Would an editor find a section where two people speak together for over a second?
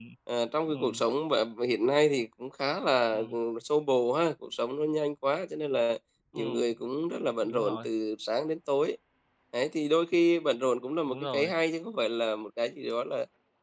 No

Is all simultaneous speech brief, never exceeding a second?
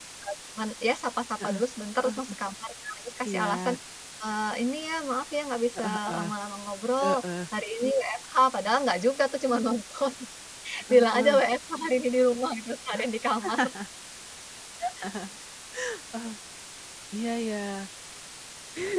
Yes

